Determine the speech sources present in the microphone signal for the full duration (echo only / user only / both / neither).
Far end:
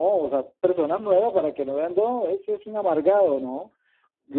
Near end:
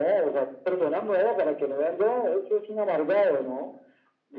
echo only